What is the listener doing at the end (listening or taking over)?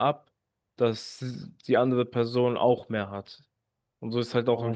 taking over